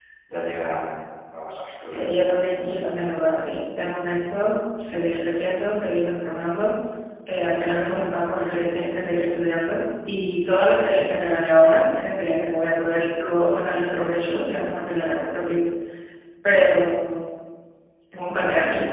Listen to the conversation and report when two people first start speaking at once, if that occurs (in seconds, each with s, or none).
1.6 s